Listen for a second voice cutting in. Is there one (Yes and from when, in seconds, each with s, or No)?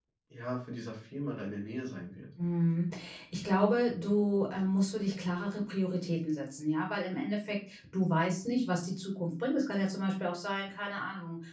No